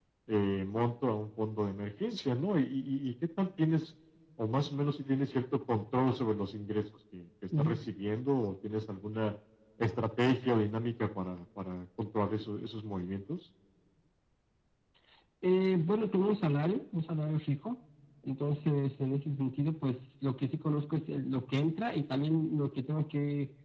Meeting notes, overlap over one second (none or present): none